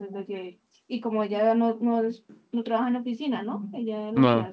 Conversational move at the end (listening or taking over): listening